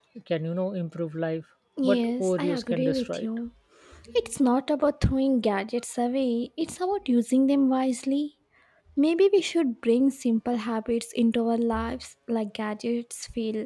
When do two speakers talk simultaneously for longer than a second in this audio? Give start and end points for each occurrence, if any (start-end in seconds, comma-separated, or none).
1.8-3.3